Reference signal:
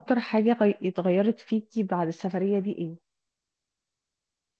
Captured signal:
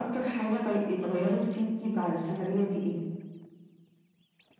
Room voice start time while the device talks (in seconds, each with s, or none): none